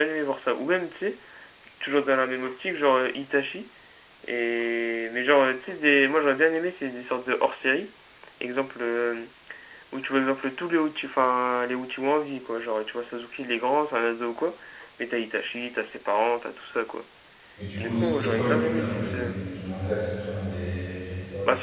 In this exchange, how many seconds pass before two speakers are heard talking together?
17.8 s

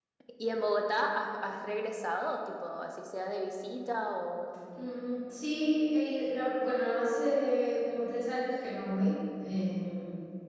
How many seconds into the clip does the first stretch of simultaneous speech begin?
none

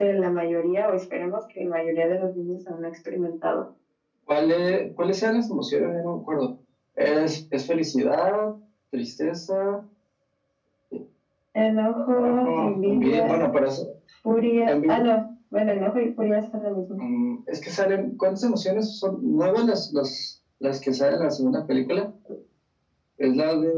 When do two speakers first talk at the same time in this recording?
12.1 s

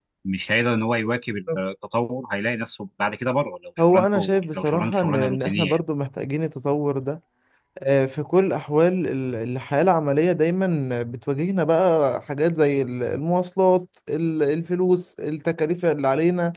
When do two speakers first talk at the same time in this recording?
3.8 s

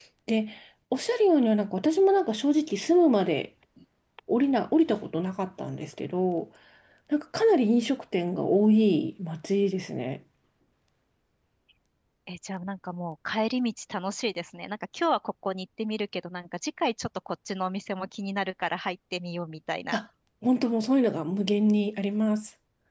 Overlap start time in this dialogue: none

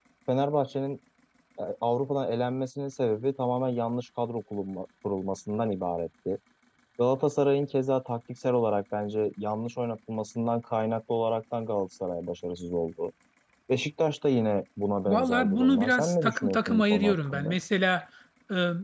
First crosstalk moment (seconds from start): 15.1 s

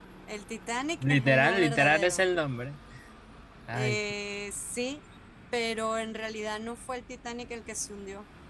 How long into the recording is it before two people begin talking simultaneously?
1.0 s

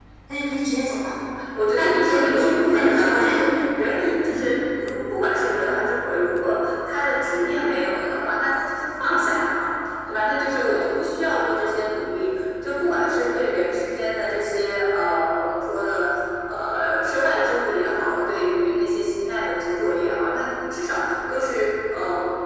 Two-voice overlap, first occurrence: 1.7 s

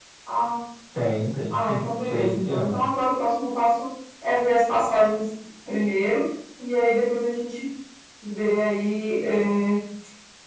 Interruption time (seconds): 1.5 s

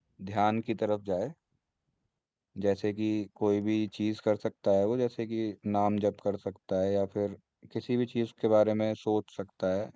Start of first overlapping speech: none

